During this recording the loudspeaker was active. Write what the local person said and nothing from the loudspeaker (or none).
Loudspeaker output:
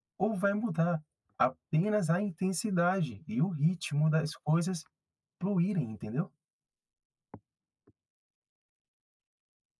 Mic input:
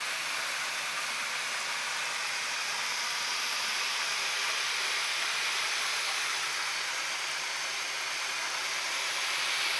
none